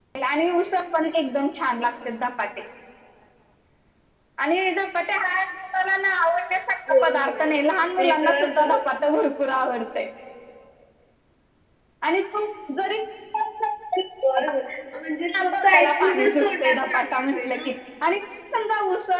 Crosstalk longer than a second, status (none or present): present